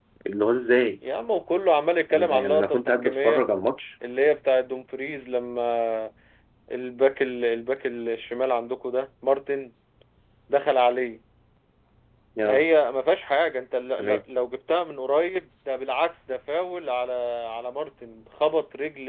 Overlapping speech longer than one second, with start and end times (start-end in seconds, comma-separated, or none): 2.1-3.4